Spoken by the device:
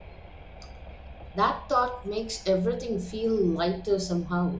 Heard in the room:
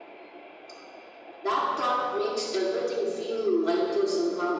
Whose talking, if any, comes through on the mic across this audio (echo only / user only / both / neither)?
echo only